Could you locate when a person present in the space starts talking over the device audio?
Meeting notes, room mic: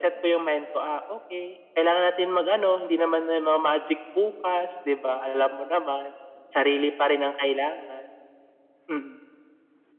none

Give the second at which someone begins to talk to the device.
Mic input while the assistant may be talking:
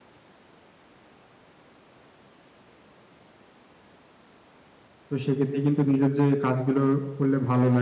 5.1 s

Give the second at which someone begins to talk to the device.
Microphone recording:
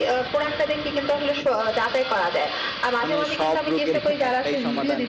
3.0 s

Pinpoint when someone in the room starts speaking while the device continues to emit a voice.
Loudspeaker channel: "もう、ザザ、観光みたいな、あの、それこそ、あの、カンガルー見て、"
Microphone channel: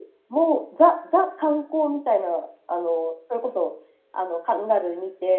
none

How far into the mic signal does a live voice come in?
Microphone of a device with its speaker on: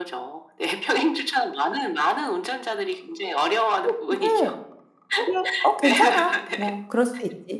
3.8 s

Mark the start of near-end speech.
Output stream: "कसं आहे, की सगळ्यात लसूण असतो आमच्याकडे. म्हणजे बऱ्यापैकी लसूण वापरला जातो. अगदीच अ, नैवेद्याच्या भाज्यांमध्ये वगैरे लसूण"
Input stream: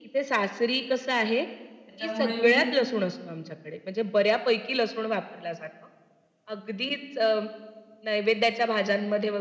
1.9 s

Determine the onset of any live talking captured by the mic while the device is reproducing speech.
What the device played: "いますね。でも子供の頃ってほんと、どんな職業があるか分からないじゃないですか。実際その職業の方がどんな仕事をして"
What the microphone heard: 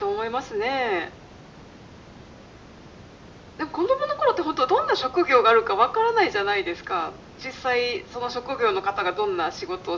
none

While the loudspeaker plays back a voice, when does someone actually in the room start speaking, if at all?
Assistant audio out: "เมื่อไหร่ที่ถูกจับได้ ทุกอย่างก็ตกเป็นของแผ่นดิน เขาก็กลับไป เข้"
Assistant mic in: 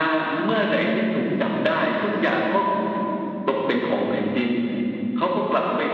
none

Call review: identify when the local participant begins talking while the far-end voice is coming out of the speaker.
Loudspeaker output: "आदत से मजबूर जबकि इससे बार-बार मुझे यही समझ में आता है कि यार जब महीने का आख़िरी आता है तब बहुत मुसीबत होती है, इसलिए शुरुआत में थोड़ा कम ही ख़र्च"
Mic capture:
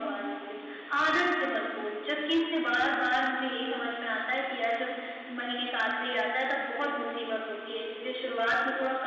none

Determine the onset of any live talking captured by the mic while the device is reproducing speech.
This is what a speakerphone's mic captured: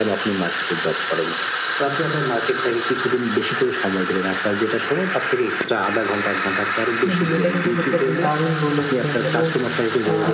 7.0 s

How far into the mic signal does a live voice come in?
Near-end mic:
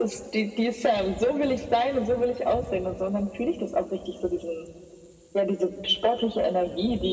none

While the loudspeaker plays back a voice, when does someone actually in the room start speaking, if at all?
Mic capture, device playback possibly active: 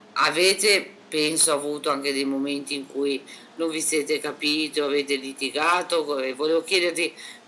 none

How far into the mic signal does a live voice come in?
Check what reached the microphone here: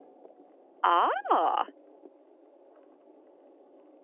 0.8 s

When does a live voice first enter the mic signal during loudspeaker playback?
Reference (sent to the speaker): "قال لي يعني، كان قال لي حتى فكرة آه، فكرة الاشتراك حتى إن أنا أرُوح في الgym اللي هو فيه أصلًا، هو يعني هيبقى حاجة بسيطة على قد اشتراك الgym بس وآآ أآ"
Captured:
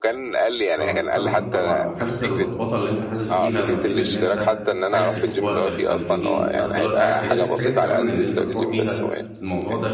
0.8 s

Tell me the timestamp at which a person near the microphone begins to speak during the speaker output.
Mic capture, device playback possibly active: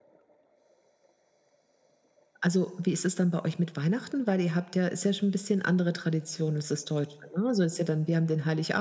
none

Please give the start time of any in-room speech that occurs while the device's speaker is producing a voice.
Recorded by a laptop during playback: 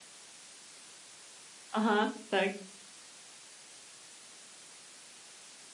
1.7 s

